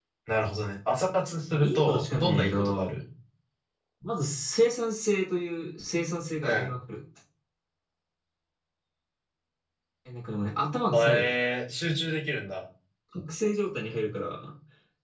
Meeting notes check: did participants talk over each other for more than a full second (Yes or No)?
Yes